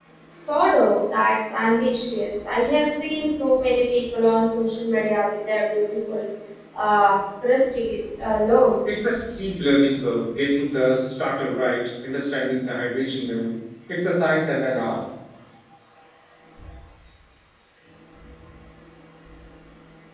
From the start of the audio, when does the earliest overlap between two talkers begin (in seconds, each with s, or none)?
none